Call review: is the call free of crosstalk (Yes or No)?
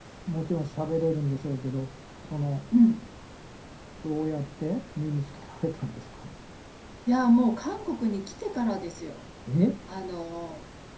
Yes